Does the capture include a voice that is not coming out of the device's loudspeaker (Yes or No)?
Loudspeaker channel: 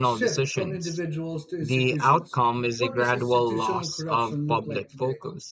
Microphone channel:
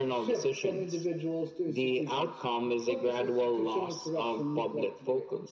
No